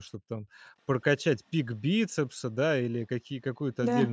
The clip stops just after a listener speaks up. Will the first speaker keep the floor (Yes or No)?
Yes